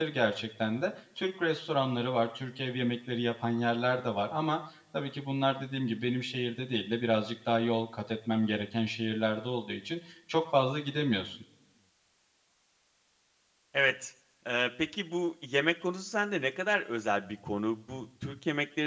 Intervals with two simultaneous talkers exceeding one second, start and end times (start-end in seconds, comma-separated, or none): none